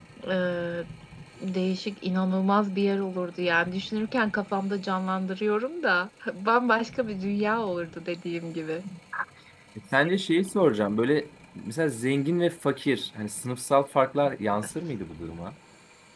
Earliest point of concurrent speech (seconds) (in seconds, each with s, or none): none